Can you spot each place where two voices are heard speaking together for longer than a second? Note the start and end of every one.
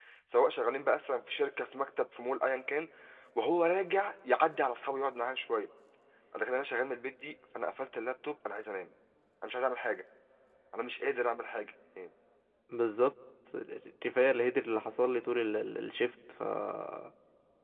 none

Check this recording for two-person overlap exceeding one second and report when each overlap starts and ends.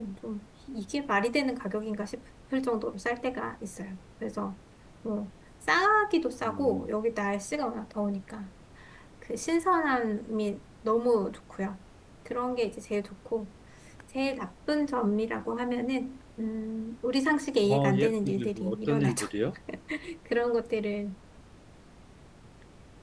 17.6-19.3

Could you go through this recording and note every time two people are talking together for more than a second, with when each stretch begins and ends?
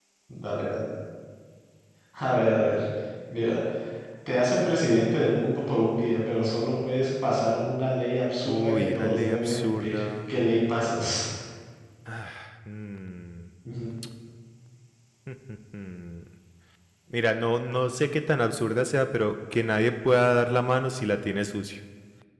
8.4-10.4

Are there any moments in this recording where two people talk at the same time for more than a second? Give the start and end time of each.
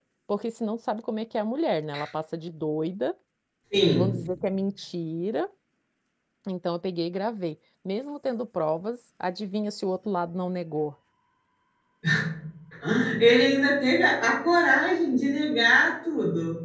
none

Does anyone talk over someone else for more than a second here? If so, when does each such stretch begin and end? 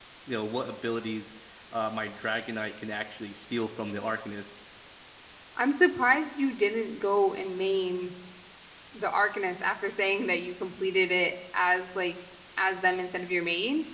none

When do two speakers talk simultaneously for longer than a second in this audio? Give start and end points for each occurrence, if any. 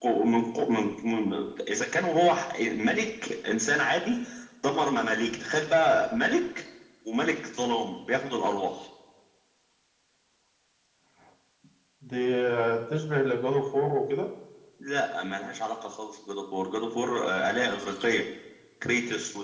none

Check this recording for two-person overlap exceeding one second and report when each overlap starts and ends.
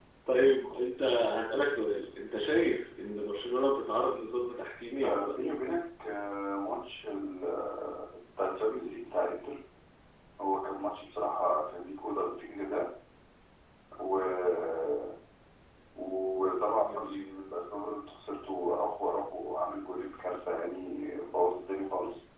none

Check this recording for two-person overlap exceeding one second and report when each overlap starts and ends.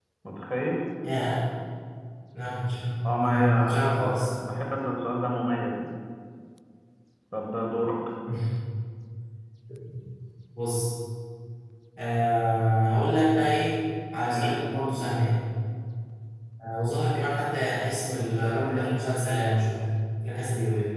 3.0-4.3

